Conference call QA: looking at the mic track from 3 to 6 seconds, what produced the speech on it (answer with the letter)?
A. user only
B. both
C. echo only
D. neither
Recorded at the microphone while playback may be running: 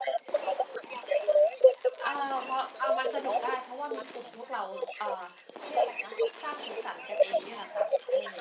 B